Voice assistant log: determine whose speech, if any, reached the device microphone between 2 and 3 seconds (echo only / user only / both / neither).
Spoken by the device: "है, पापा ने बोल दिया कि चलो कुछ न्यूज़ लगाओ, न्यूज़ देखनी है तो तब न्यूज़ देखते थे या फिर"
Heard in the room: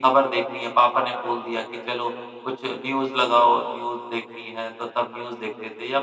echo only